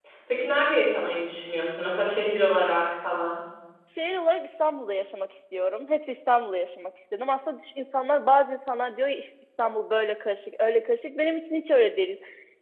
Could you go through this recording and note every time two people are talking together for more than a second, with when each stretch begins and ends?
none

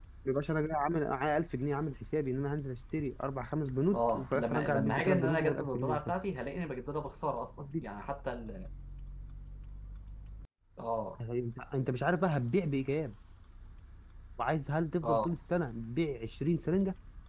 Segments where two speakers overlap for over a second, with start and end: 3.9-6.1

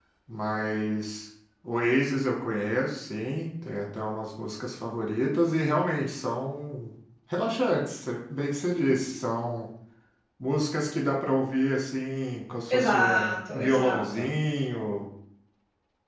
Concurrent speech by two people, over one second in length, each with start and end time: 12.7-14.2

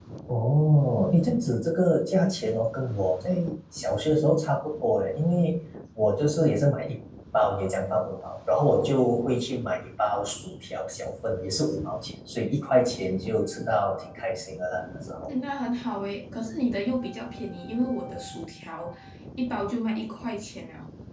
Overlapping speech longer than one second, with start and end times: none

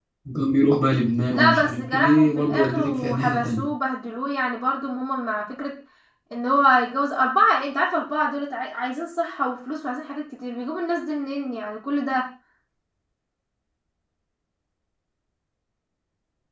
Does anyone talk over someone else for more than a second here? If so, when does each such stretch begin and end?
1.3-3.6

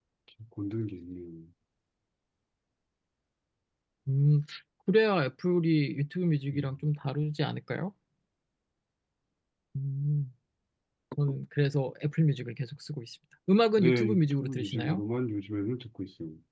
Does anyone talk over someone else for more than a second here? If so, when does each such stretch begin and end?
13.8-15.0

